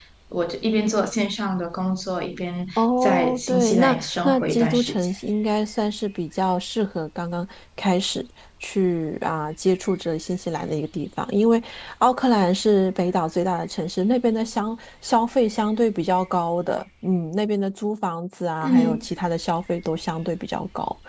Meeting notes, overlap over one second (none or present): present